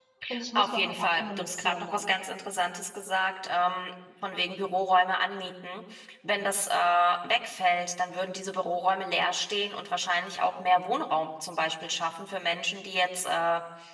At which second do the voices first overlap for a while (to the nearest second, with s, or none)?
1 s